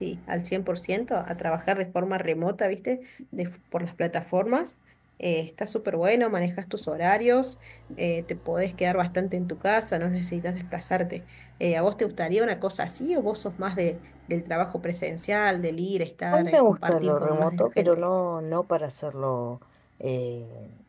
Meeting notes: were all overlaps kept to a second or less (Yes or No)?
No